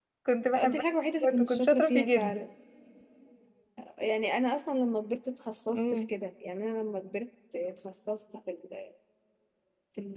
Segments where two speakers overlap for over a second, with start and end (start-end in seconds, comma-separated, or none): 1.2-2.4